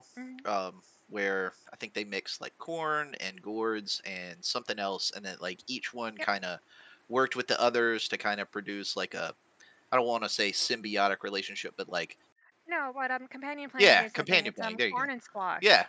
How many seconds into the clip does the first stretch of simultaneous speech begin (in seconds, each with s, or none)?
13.8 s